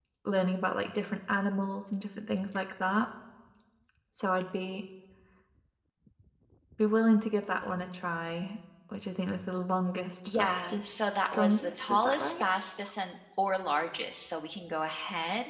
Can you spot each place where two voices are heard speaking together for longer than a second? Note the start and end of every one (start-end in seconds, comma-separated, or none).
10.3-12.4